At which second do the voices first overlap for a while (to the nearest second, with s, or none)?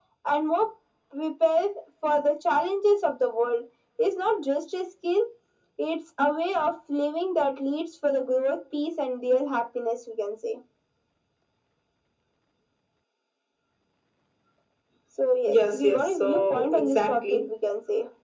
15 s